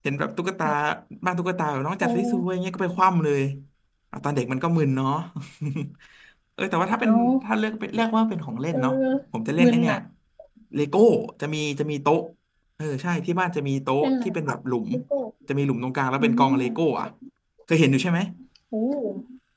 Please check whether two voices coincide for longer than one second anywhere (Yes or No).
No